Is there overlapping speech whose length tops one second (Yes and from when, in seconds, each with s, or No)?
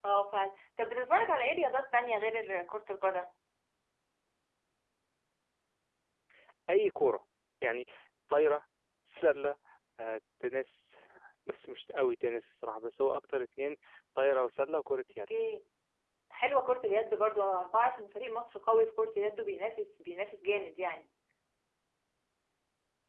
No